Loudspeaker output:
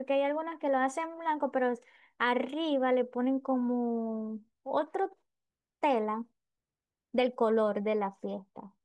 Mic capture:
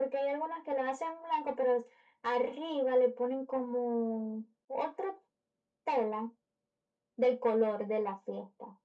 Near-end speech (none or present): none